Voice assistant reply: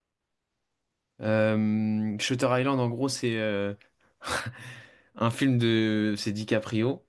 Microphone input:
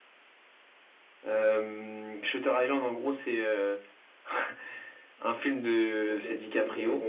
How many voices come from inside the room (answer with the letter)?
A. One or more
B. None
A